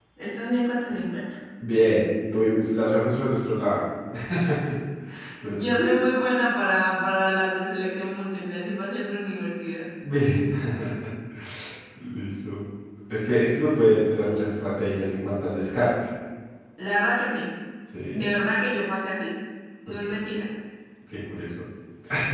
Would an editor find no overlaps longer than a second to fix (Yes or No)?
Yes